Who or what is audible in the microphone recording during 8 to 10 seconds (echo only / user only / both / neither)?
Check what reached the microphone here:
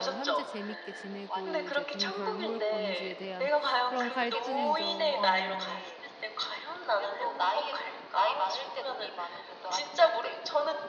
echo only